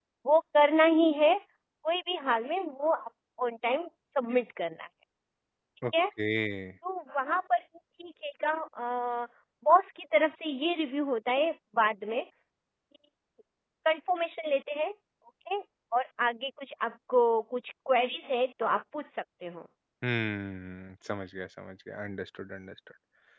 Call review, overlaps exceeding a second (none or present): none